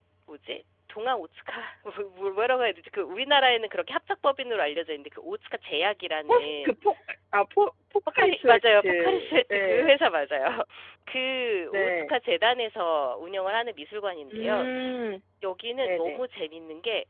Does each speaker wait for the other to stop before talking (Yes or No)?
No